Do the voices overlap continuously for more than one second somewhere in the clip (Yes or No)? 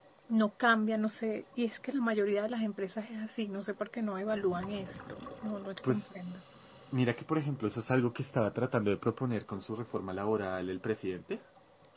No